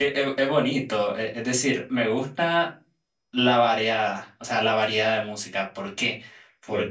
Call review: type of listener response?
listening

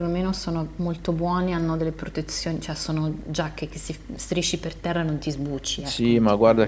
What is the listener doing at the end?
taking over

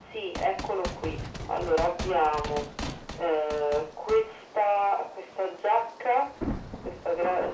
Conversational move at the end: listening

